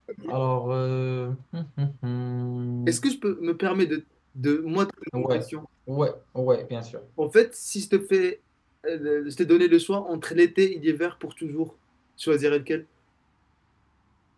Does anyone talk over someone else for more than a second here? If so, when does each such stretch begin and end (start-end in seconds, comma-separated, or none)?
none